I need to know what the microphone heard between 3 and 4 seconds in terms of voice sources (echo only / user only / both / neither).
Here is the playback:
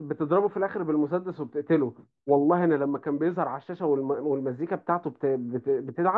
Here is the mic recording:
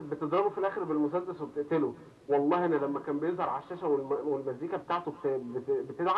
echo only